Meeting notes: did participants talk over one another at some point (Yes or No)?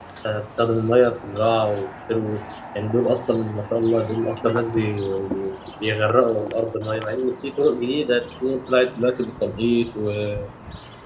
No